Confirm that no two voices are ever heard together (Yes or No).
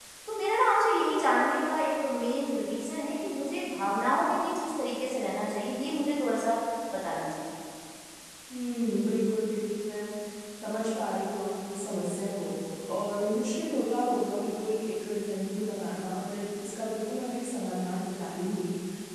Yes